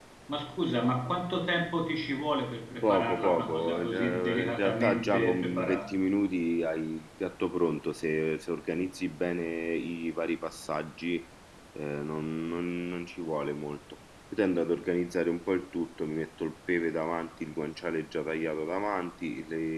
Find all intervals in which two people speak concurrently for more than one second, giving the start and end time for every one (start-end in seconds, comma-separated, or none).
2.8-5.9